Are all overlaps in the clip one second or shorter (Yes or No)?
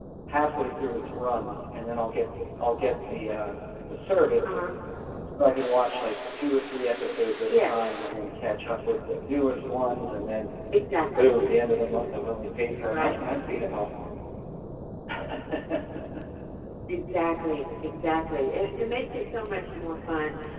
Yes